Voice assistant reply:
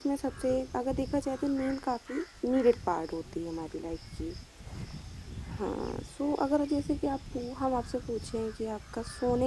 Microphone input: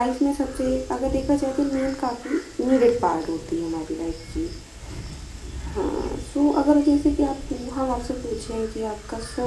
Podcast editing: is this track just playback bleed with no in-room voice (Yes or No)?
Yes